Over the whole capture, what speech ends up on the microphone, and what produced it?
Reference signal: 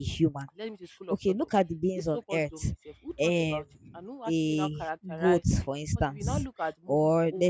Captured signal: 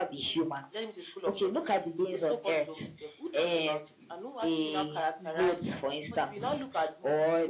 echo only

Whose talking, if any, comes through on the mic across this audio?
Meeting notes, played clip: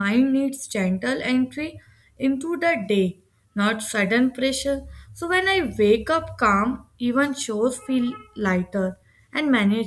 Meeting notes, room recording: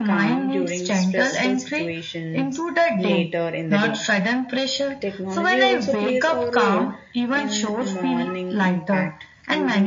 both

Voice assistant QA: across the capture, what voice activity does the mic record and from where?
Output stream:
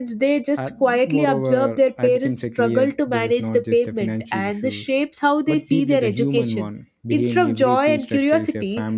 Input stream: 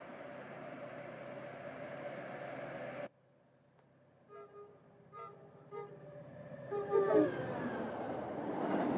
neither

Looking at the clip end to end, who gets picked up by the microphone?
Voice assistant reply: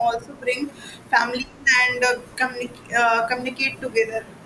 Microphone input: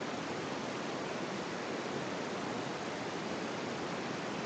neither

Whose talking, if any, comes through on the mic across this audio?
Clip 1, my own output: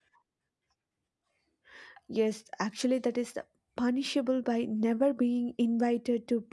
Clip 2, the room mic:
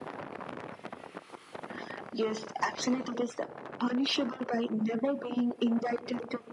echo only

